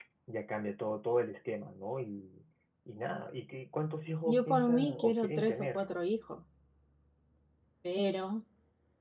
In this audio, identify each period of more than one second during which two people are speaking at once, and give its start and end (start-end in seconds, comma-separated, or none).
4.2-5.8